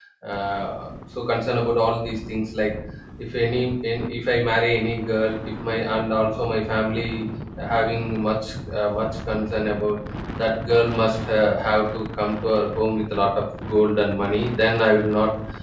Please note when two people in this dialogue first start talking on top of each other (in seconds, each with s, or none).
none